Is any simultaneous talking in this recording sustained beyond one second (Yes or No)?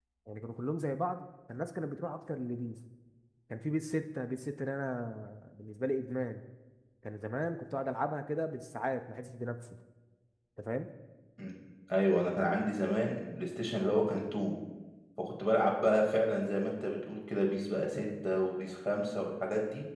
No